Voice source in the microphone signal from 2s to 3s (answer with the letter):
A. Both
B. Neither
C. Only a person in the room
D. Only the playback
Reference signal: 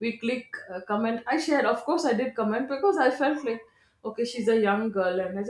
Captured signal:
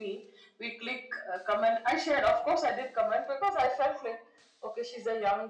D